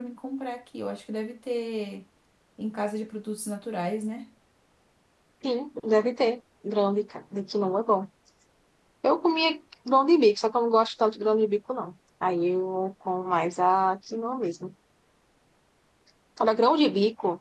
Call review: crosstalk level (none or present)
none